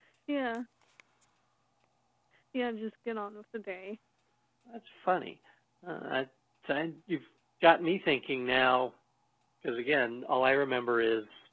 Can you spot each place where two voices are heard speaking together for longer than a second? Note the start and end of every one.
none

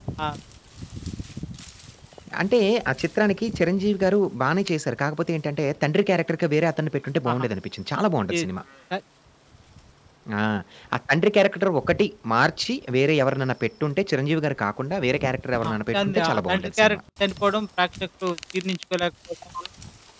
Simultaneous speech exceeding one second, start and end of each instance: 15.6-17.0

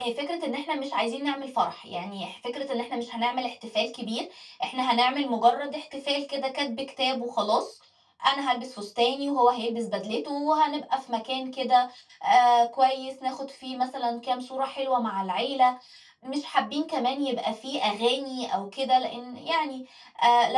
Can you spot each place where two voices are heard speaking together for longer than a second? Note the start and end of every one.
none

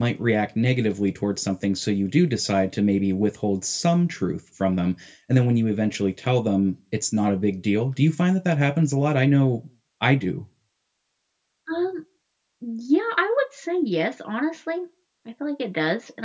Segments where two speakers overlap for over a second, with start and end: none

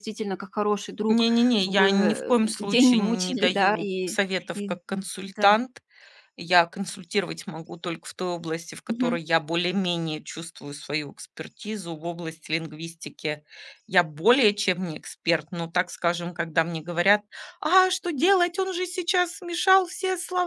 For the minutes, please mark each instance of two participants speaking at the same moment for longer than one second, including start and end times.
1.1-4.2

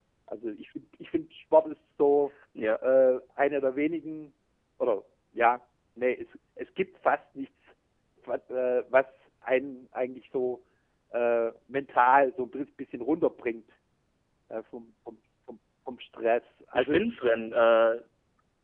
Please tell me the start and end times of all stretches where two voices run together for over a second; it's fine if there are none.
none

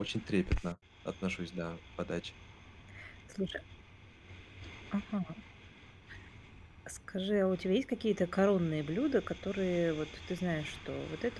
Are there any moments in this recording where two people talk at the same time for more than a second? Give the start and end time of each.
none

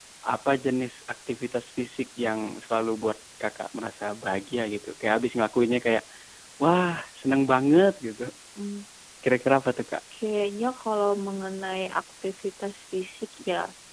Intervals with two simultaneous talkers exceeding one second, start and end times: none

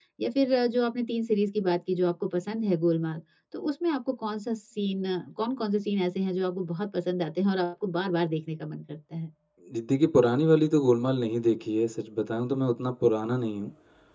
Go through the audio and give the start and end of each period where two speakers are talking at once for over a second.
none

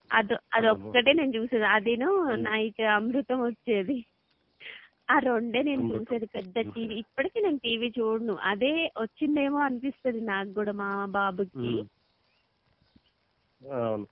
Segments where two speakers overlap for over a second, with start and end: none

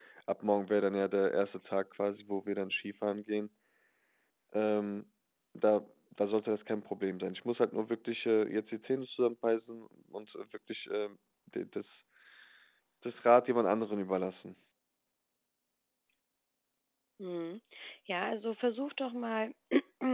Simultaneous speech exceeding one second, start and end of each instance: none

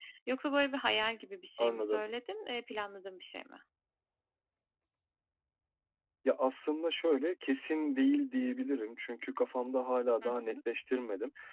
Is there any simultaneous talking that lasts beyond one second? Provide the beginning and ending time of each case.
none

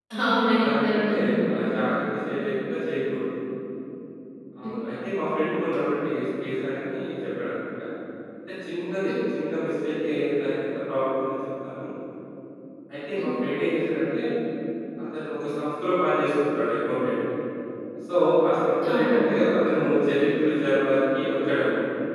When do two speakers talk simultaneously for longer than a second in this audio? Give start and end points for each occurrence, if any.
0.6-1.8

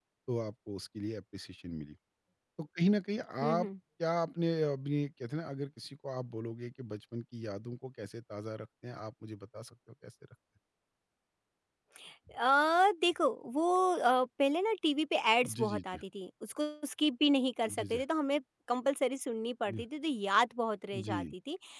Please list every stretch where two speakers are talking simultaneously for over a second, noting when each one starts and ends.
none

